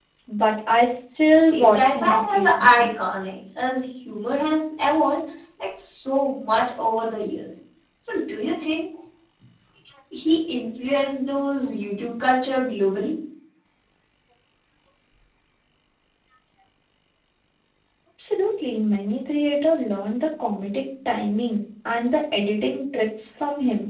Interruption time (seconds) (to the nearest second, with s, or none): 2 s